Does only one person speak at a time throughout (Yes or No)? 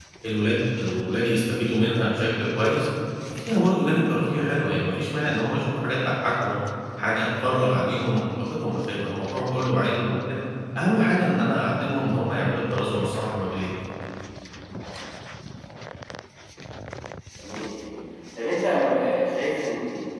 Yes